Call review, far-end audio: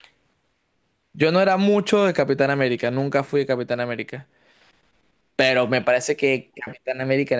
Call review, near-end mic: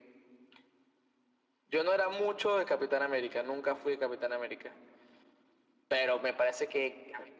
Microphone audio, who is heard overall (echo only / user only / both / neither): echo only